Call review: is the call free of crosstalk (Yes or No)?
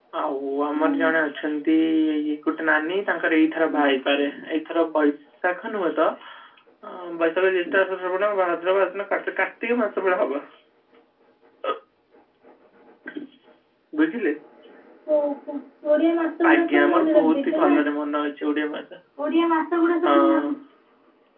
No